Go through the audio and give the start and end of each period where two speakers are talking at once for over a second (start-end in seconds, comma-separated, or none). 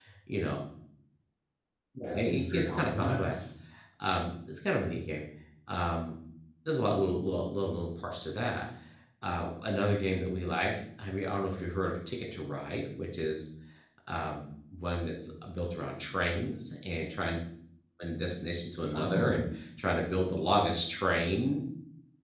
2.0-3.4